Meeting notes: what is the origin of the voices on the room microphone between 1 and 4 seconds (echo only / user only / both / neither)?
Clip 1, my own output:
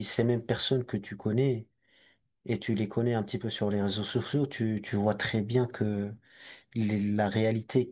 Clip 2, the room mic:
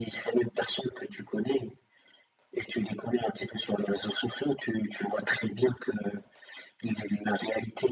echo only